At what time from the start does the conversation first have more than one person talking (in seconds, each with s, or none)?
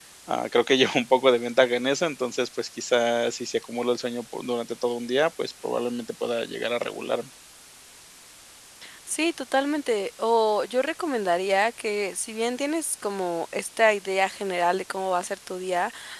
none